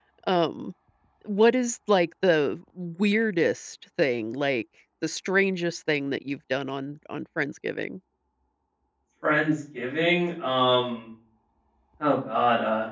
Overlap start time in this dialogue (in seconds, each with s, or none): none